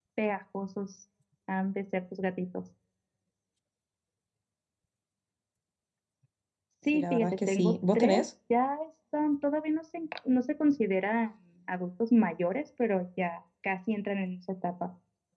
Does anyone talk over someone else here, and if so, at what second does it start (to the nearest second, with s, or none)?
7 s